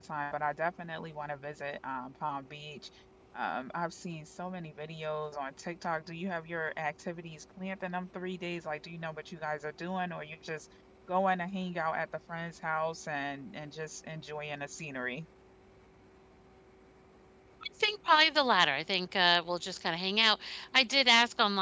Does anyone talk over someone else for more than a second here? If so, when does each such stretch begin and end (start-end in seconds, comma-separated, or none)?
none